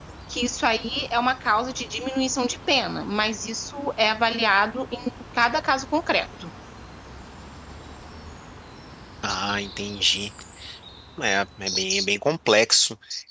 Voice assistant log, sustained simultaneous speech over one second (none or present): none